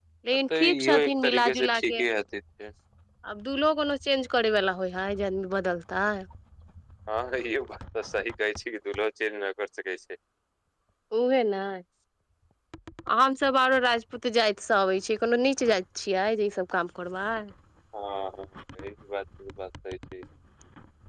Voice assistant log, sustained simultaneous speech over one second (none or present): present